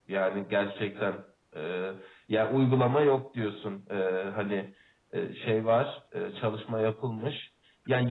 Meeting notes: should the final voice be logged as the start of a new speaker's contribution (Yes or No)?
No